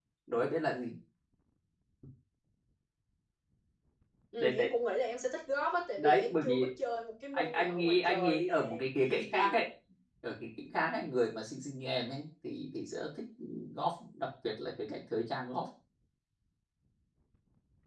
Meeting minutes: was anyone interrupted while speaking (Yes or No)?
Yes